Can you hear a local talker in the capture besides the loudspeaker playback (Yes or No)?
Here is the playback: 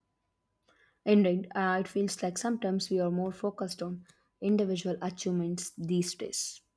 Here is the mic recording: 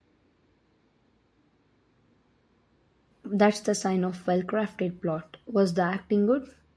Yes